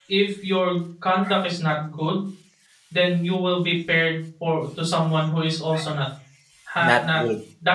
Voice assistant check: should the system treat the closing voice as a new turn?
No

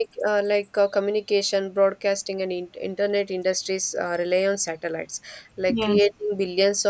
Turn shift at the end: No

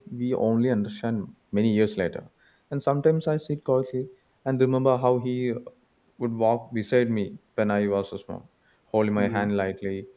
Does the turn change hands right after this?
No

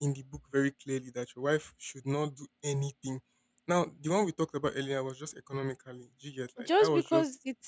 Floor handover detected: Yes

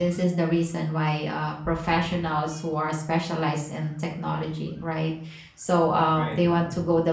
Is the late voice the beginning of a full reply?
No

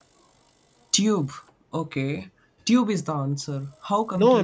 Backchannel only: No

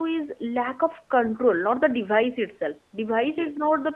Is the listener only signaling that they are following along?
Yes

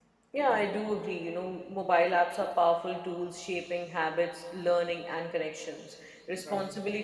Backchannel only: Yes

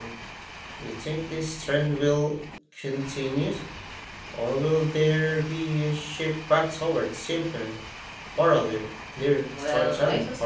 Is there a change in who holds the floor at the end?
Yes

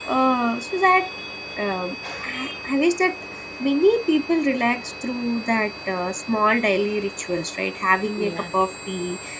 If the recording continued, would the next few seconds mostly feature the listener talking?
No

